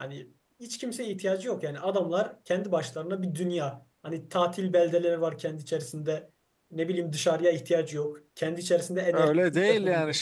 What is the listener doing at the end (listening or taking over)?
taking over